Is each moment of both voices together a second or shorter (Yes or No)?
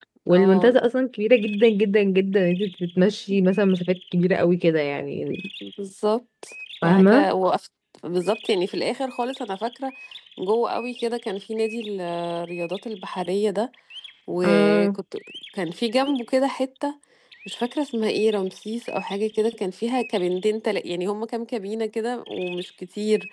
Yes